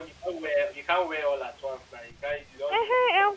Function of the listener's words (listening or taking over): taking over